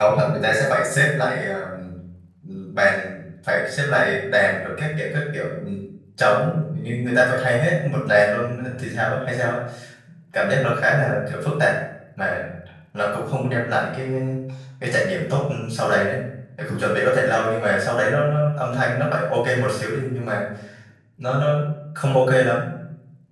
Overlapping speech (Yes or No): No